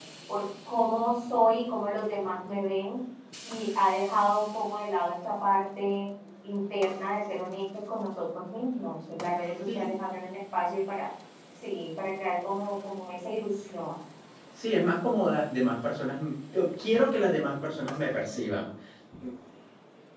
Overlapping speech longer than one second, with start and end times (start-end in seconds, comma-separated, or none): none